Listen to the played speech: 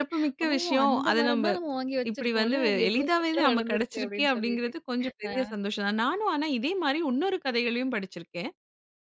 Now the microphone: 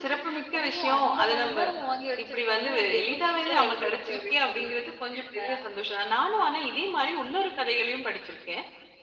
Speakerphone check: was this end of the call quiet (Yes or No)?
Yes